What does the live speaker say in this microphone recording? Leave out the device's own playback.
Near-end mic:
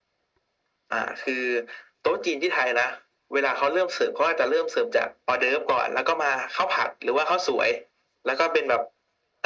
none

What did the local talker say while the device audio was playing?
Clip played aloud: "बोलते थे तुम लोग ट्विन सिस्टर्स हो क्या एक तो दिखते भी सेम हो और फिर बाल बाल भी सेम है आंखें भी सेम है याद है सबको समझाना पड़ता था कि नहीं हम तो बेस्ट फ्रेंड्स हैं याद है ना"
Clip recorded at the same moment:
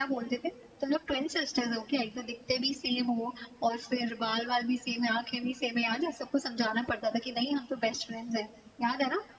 none

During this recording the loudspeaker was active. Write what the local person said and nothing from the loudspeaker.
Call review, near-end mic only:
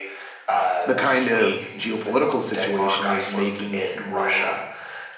the kind of geopolitical situation is making it more

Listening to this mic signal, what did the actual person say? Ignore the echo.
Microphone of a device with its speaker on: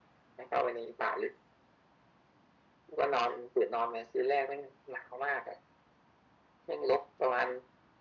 none

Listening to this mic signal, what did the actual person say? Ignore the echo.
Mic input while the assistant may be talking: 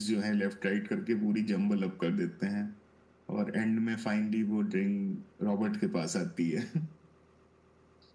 none

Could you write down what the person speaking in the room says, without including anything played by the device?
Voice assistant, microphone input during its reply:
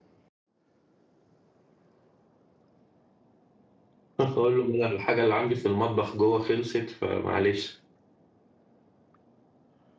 أقول له أنا الحاجة اللي عندي في المطبخ جوه خلصت فمعلش

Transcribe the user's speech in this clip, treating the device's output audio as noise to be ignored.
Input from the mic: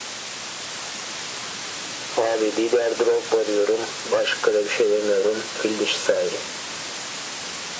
none

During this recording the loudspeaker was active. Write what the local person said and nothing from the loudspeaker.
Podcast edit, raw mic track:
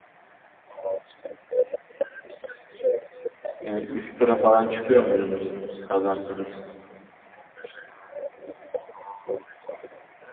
Yani üst tura falan çıkıyor muydunuz kazansanız?

